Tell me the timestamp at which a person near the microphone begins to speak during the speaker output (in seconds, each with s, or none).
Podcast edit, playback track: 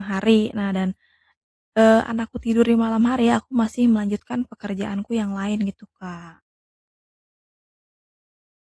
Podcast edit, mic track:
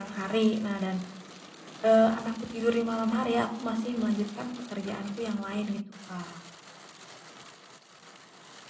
none